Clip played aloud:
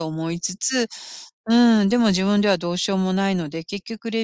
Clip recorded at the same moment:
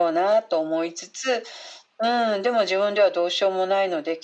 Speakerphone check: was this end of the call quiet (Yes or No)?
Yes